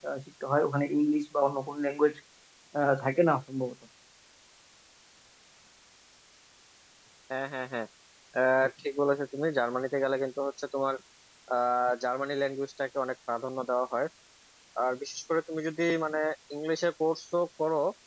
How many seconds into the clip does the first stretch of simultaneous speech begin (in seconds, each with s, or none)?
none